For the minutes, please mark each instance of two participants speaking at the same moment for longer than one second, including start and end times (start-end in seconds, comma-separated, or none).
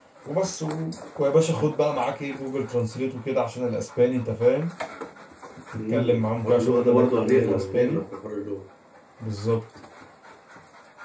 5.8-8.0